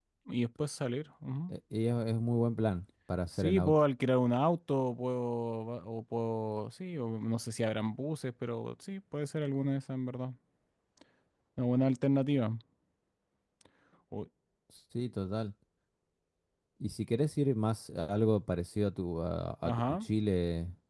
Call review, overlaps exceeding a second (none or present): none